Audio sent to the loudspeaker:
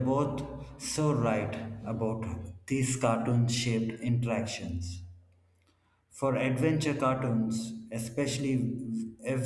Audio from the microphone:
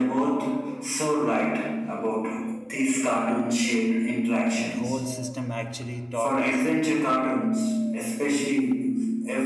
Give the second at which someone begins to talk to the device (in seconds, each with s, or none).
4.6 s